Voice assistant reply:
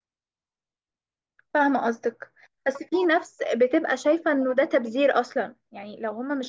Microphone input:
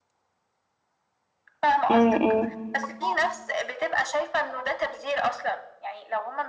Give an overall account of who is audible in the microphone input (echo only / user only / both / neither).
both